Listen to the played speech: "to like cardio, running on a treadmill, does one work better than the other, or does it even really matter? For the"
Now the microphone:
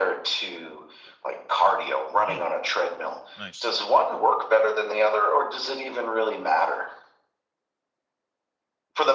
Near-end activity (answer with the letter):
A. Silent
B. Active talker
B